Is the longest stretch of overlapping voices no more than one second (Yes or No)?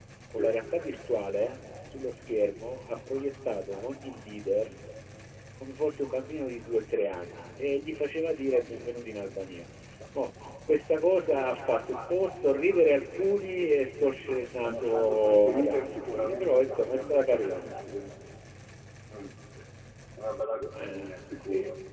No